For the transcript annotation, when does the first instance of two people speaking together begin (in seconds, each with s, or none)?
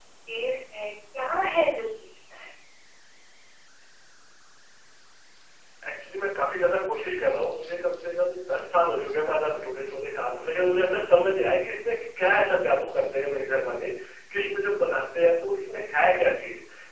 none